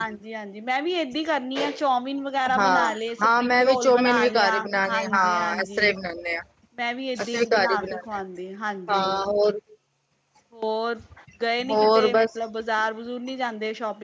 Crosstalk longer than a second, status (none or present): present